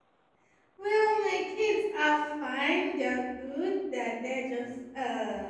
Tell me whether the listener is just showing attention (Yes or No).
Yes